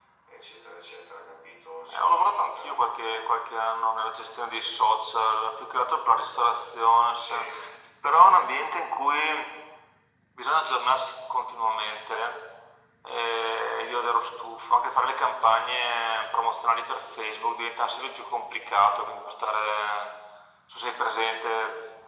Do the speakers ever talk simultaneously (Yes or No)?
Yes